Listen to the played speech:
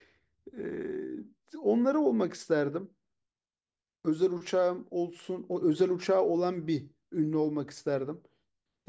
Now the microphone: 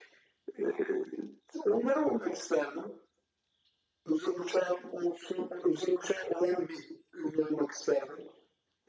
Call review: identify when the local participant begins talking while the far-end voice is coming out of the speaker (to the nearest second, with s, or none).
none